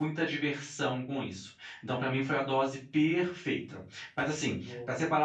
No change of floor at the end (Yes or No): Yes